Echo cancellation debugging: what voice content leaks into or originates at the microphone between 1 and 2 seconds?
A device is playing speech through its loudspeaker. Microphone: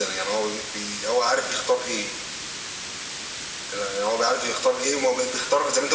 echo only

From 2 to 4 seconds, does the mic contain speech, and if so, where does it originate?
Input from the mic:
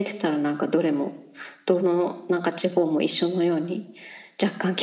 echo only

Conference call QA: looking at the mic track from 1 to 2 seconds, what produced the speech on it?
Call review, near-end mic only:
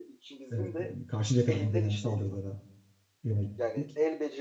both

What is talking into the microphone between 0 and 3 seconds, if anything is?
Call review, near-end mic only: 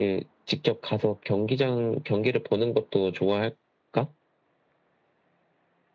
echo only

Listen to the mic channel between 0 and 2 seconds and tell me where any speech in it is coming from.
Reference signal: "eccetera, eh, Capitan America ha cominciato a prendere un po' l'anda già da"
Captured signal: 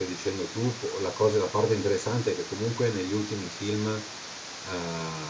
user only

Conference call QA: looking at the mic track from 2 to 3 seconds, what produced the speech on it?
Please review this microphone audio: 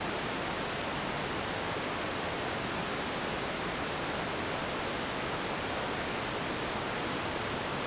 neither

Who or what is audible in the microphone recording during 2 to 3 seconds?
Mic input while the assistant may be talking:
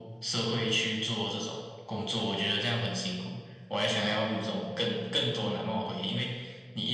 echo only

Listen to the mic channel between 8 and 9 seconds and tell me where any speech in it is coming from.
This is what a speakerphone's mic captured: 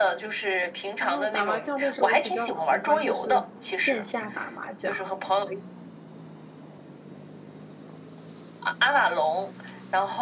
echo only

